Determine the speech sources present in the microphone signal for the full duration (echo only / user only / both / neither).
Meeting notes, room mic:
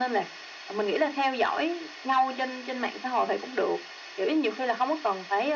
echo only